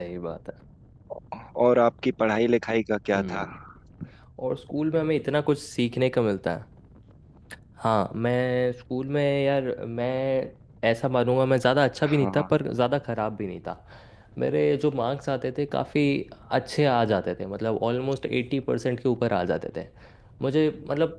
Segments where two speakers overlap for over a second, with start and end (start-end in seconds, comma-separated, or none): none